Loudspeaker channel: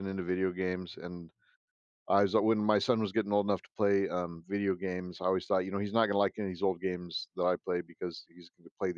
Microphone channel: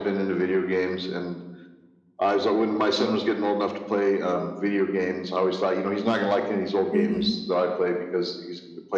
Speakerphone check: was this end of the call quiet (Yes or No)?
No